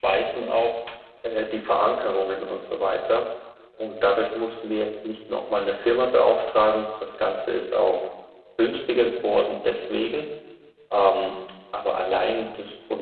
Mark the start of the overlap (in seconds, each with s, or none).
none